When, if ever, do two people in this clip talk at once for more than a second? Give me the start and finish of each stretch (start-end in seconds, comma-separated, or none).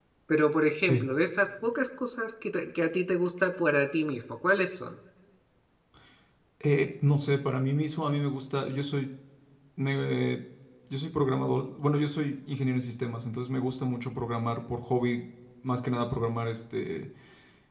none